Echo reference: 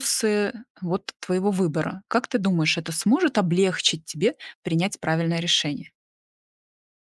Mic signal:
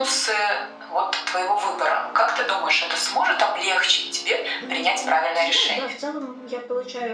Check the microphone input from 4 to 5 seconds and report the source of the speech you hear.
both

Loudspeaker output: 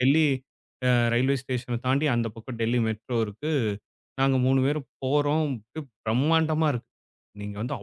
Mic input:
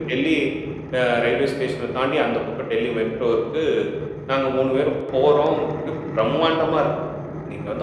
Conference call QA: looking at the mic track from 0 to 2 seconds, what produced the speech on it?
echo only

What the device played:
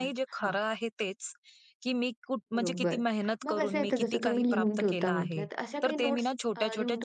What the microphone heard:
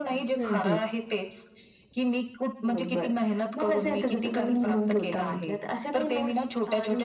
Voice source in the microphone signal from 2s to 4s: echo only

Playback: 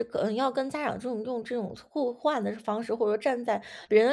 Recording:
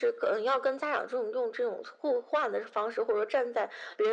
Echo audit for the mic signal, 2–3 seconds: echo only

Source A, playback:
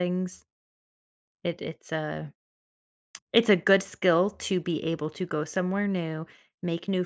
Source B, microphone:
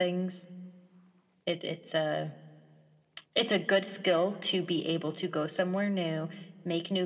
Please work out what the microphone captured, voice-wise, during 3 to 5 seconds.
echo only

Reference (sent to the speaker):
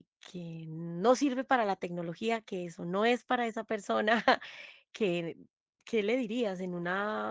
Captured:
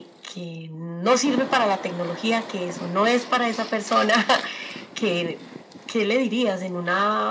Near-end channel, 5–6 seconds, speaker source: echo only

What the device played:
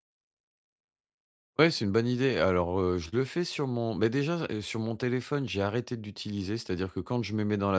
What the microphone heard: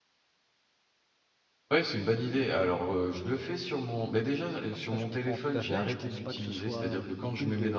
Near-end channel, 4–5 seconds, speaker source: both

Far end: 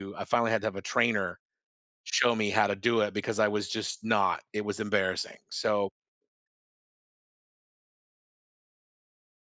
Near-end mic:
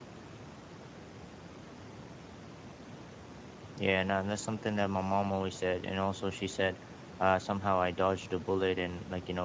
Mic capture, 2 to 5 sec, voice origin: user only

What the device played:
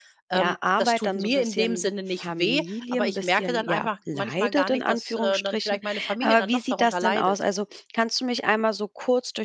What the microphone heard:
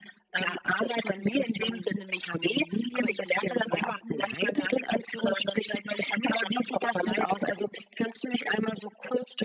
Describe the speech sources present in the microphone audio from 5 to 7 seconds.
echo only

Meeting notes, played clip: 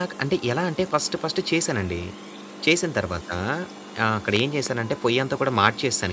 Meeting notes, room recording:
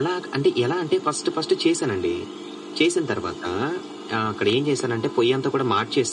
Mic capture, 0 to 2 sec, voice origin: echo only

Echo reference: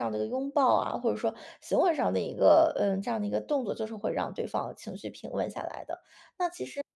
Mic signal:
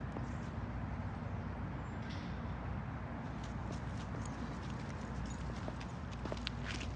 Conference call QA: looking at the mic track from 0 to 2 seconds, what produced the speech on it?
neither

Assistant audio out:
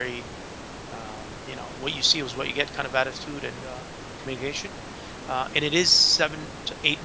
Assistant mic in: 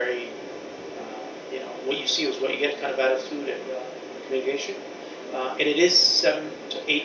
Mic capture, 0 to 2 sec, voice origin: echo only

